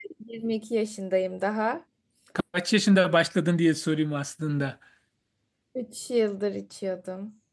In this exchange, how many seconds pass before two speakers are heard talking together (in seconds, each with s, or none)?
none